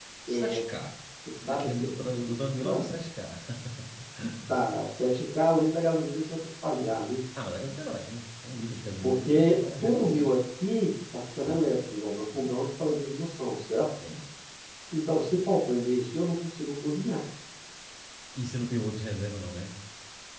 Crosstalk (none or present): present